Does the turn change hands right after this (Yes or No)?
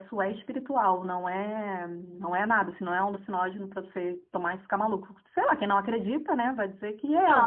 Yes